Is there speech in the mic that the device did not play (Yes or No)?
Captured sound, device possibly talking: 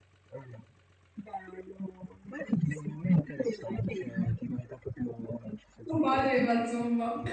Yes